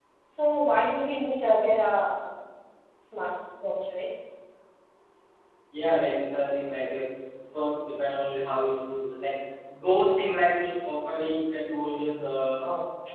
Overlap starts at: none

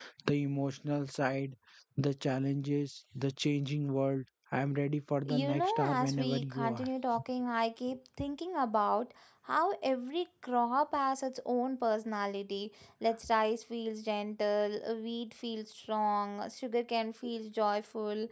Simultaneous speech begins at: 5 s

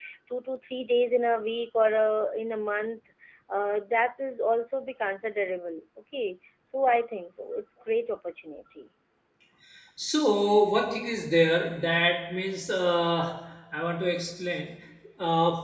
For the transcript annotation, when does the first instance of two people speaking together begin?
none

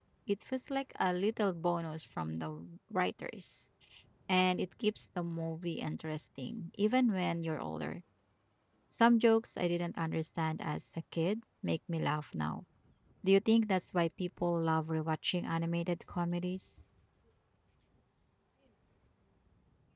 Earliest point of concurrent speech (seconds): none

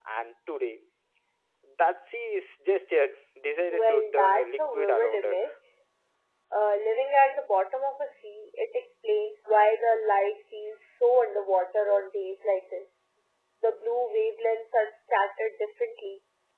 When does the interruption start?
4 s

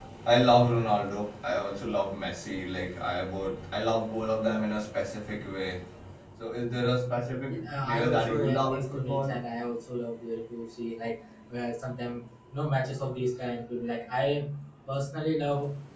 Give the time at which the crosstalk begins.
7 s

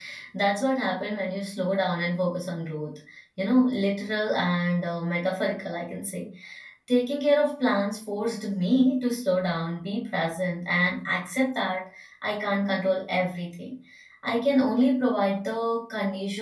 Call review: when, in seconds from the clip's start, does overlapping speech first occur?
none

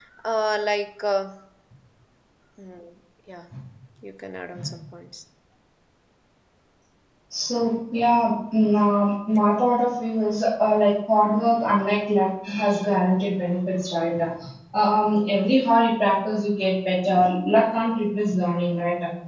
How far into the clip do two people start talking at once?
none

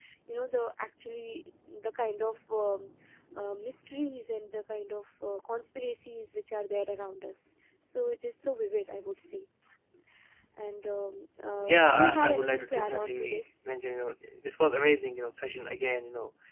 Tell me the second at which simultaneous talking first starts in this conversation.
12 s

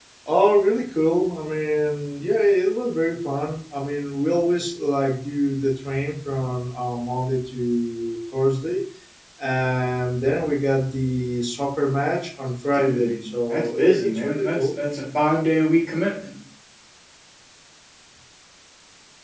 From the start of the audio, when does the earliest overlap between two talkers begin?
13 s

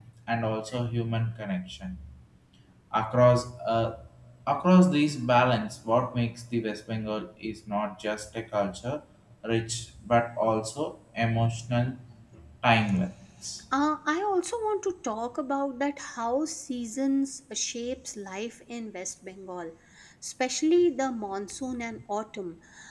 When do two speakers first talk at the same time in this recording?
none

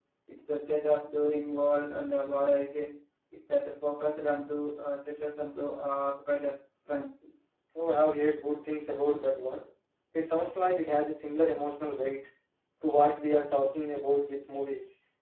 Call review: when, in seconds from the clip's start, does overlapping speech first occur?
none

